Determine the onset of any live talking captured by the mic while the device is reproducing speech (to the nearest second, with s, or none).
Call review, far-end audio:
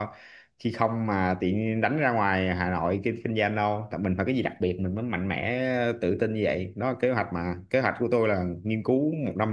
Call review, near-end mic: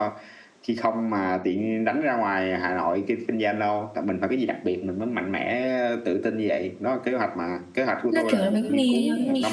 8 s